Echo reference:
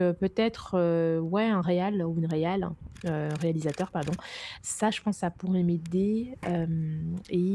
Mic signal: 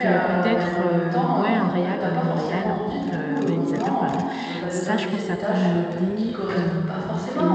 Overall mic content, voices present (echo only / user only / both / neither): both